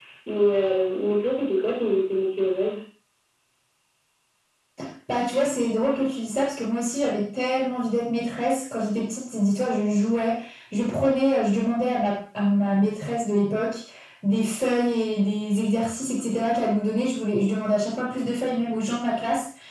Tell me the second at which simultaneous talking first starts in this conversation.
none

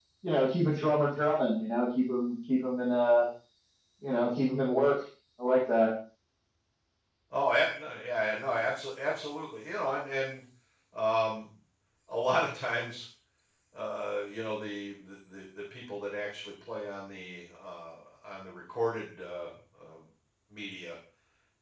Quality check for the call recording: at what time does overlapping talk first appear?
none

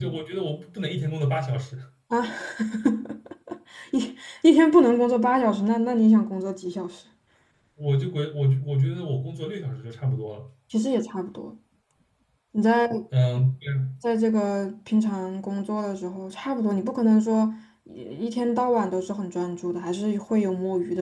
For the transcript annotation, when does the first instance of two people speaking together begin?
none

